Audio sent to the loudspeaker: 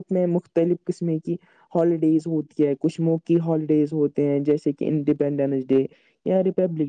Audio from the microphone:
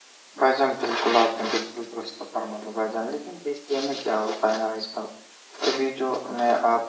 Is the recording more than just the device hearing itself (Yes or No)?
Yes